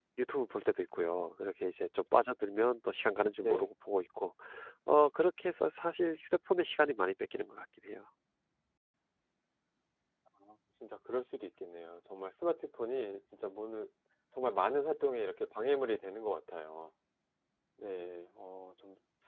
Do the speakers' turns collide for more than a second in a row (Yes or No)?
No